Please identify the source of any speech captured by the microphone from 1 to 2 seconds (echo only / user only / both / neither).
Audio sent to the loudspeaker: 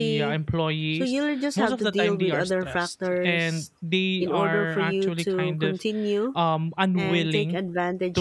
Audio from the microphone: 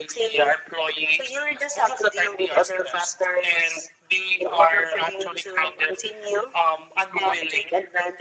echo only